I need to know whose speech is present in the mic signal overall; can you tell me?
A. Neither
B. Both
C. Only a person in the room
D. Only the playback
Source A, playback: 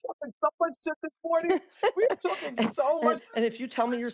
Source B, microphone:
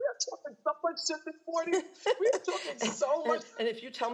D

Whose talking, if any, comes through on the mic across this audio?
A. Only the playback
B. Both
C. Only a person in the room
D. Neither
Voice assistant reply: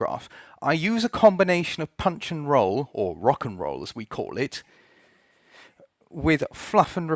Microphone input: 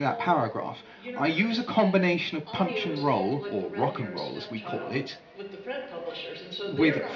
B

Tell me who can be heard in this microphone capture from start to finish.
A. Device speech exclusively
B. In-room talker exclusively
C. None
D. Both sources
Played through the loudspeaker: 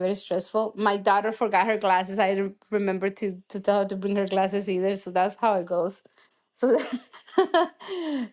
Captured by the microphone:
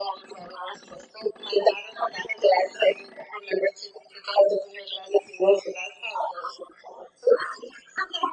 A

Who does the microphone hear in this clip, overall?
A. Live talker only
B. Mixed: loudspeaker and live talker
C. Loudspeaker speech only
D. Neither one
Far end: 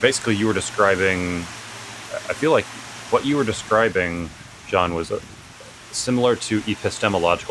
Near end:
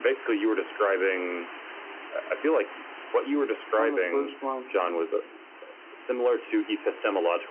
B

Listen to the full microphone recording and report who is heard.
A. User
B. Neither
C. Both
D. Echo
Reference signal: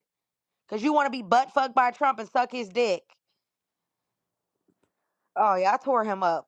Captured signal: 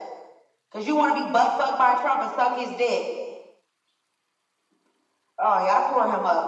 D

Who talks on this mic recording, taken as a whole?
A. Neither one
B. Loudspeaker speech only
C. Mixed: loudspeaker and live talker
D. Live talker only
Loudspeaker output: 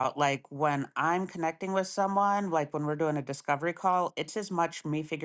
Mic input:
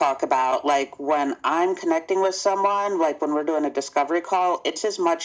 B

